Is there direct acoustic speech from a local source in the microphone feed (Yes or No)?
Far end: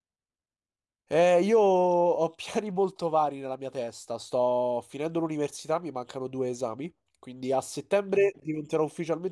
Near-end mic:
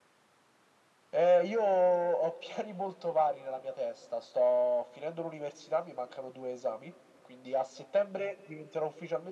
No